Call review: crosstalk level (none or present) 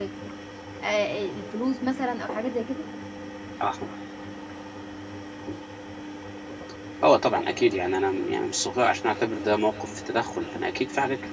none